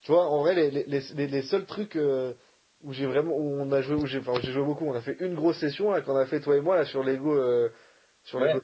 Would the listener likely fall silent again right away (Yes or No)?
Yes